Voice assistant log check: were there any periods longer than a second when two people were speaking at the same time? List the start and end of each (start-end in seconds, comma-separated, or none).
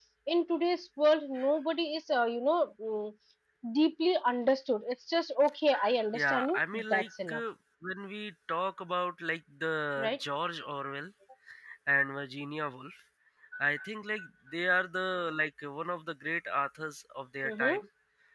6.1-7.4